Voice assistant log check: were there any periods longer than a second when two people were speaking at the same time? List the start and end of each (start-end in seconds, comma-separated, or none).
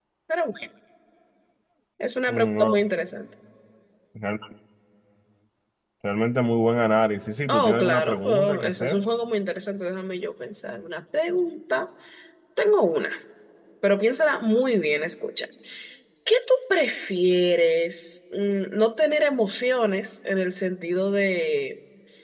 7.5-9.0